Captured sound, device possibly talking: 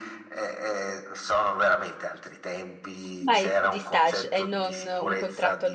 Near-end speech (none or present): present